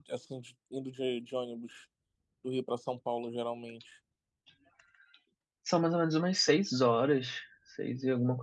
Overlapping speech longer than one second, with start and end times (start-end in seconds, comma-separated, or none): none